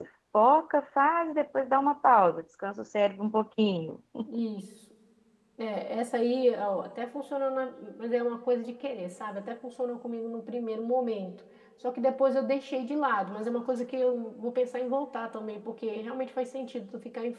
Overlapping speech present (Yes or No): No